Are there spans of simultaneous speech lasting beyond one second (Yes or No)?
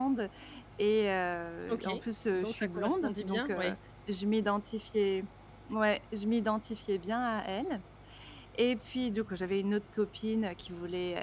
Yes